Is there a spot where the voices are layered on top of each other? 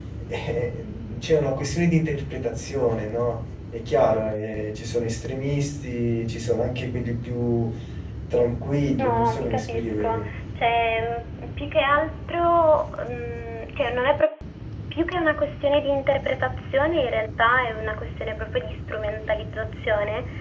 Yes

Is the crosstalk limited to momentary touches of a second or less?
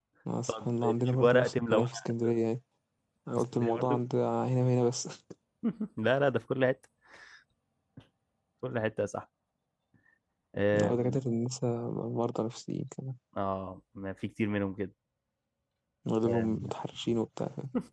No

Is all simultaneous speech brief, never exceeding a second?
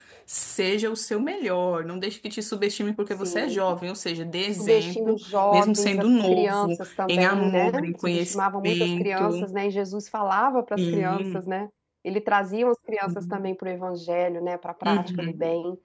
No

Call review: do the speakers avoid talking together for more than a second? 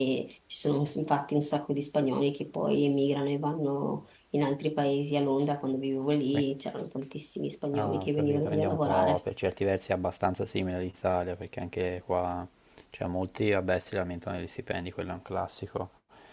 No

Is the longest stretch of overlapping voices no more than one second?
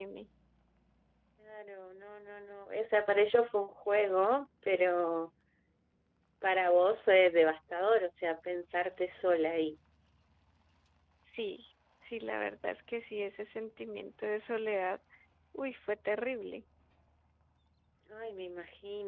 Yes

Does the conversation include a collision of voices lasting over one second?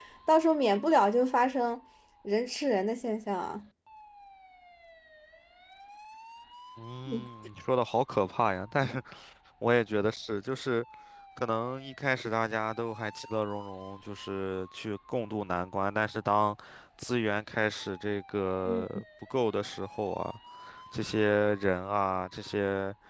No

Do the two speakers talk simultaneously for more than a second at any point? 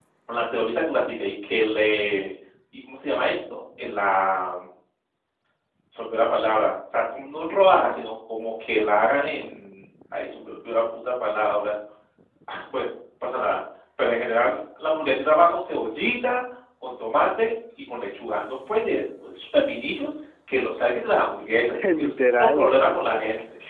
Yes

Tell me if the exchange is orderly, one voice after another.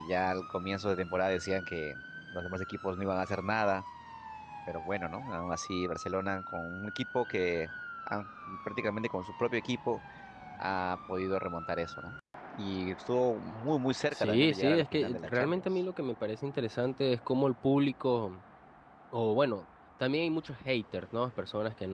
No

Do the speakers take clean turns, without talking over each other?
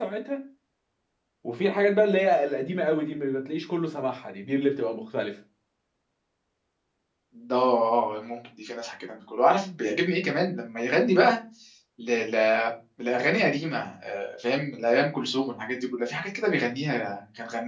Yes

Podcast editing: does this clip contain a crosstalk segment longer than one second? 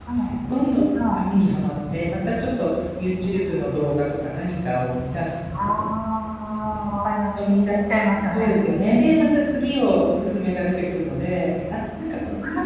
No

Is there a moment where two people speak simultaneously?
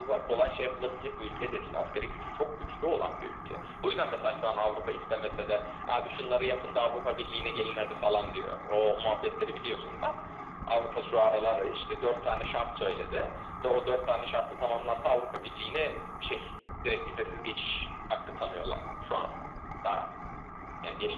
No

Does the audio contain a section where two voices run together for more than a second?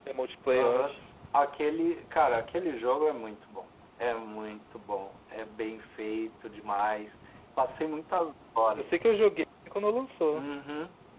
No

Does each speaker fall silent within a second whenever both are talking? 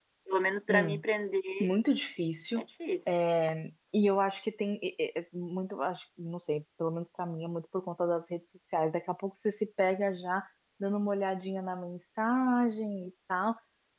Yes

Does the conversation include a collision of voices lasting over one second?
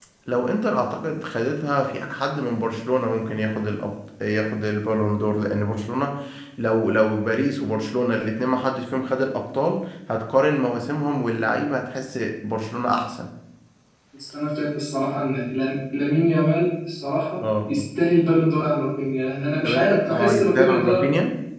Yes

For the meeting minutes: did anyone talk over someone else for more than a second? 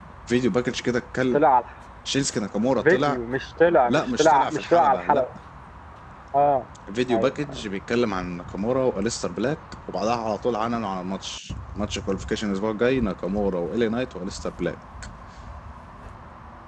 Yes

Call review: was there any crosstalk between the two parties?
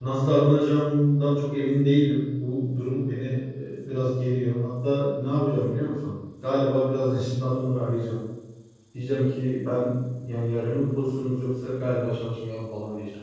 No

